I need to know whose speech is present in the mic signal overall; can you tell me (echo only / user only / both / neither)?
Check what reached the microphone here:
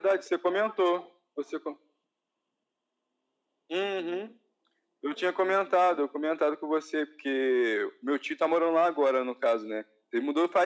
echo only